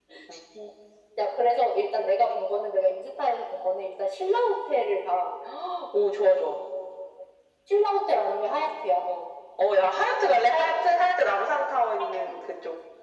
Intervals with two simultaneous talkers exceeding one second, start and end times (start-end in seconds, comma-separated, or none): none